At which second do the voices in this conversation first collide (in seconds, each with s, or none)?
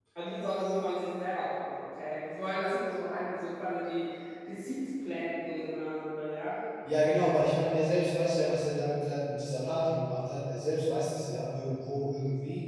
none